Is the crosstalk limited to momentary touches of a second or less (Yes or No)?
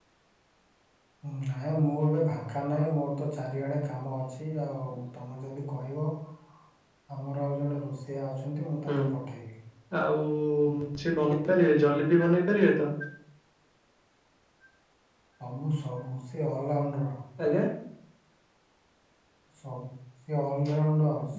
Yes